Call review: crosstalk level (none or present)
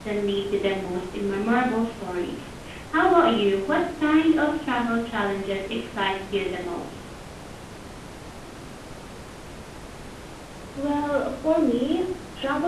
none